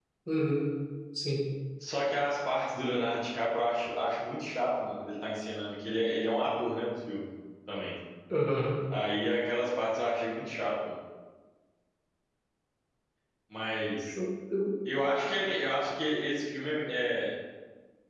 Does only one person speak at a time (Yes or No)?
Yes